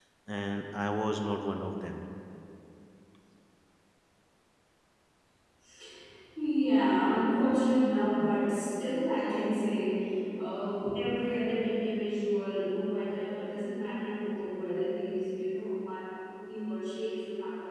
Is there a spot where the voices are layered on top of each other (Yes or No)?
No